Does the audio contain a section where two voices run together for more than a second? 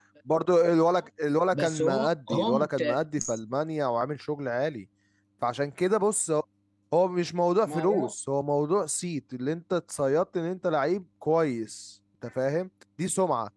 Yes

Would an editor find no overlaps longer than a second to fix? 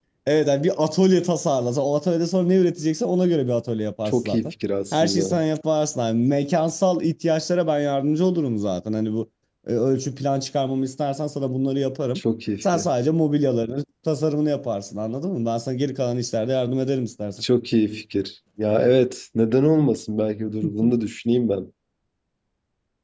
Yes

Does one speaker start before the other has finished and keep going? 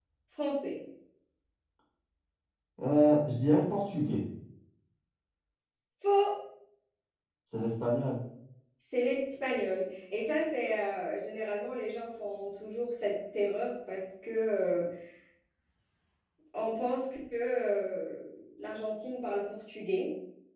No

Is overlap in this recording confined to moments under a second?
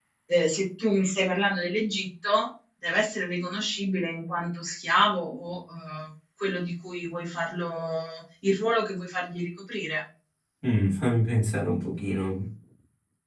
Yes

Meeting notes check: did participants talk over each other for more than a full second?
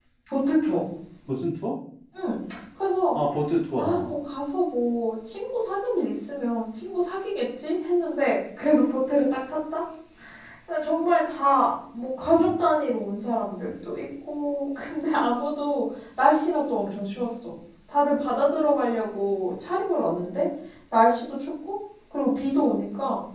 No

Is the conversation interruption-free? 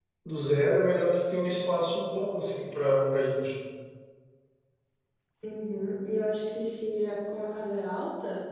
Yes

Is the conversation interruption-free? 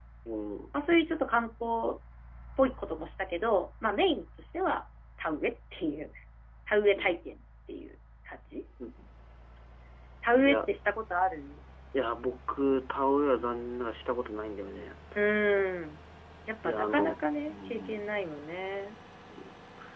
No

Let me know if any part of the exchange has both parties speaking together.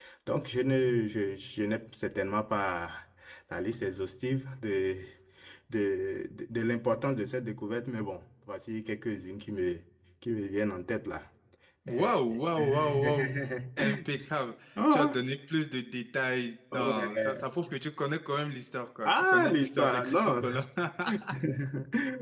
Yes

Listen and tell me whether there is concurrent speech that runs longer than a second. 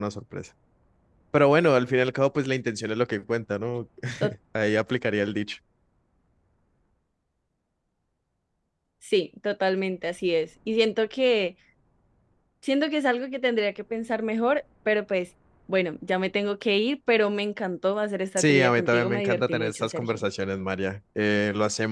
Yes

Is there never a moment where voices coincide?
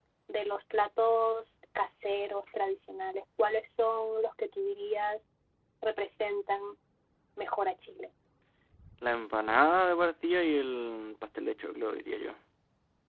Yes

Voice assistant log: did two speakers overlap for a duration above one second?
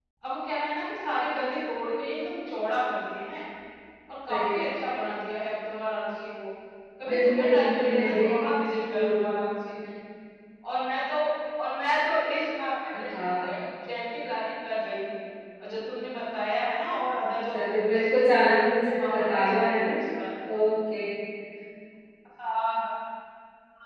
Yes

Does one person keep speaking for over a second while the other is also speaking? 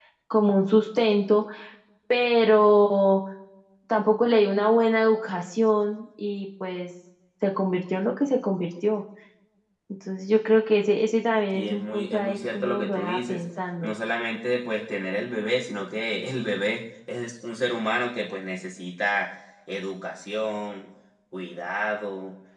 Yes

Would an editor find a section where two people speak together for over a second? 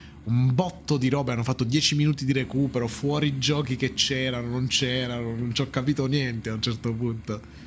No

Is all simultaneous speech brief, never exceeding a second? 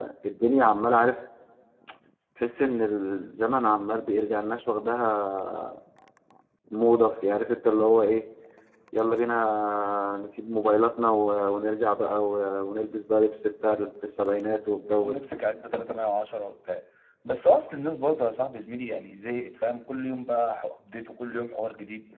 Yes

